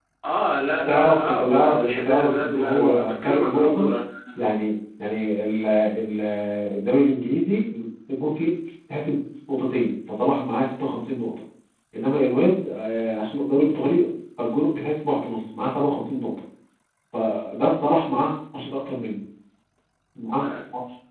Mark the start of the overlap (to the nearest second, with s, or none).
1 s